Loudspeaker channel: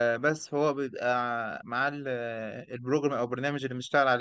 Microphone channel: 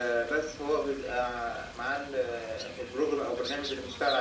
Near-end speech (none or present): none